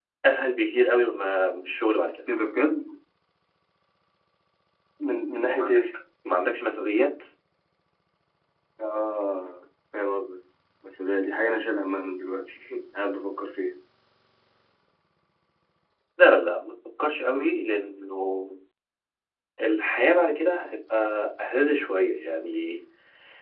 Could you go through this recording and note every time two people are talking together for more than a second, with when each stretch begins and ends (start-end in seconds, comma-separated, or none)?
none